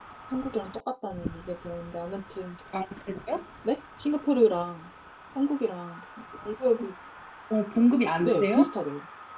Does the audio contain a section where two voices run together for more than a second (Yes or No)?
No